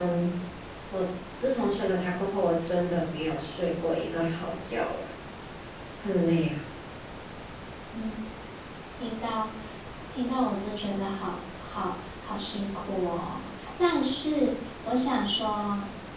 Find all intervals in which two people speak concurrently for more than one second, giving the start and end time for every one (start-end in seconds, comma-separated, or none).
none